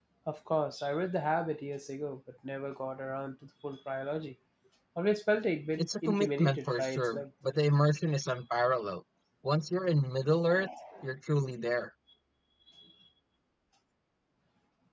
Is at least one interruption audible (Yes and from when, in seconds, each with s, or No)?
Yes, from 5.8 s